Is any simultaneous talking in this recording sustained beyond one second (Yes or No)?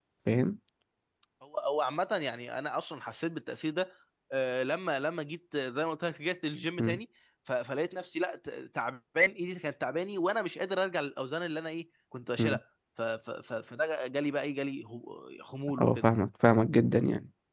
No